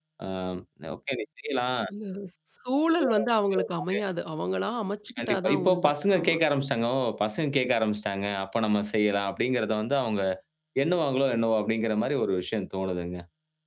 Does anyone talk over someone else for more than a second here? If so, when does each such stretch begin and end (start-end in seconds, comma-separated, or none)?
5.2-6.4